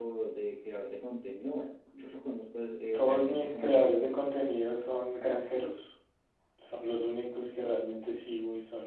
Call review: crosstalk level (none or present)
present